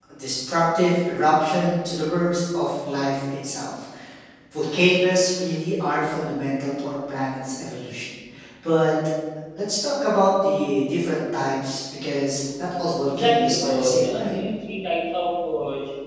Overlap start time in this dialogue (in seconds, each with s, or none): 13.1 s